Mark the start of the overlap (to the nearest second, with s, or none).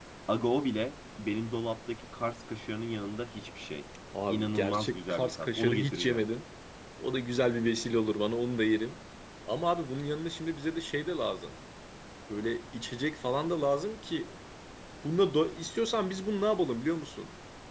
4 s